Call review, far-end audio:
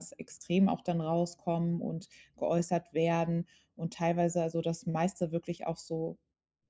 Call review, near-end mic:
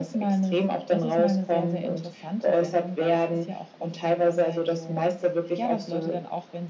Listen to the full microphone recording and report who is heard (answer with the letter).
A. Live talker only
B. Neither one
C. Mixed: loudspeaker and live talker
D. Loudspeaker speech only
C